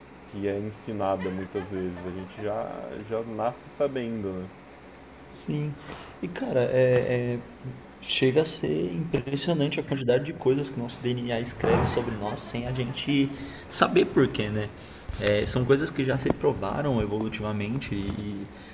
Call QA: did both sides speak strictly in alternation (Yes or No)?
Yes